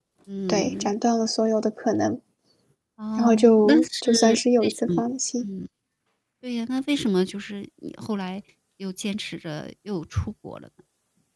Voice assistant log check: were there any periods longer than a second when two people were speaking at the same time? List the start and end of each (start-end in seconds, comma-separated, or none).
3.2-4.9